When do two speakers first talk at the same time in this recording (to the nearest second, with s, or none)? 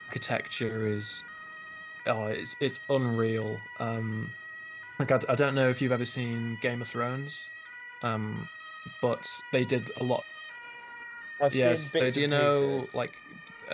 12 s